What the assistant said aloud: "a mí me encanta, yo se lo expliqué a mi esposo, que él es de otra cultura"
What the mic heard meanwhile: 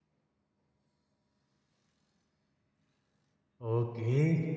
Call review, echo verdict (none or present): none